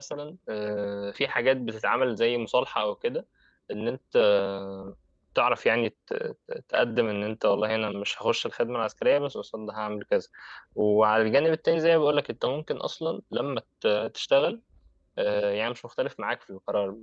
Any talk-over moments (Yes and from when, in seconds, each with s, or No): No